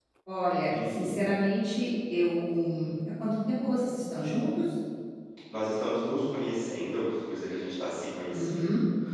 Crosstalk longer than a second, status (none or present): none